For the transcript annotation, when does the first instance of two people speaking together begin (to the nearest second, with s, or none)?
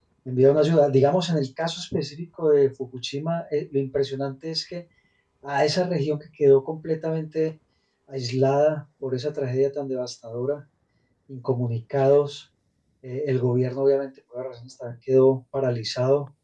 none